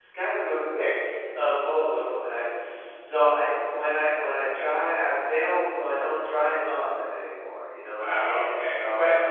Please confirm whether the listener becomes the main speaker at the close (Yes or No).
Yes